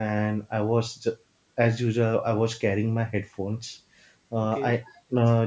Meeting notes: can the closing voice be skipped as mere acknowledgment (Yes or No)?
Yes